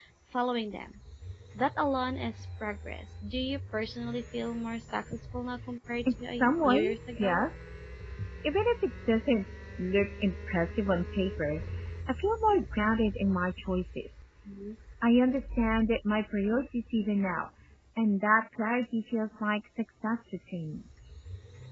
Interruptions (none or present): present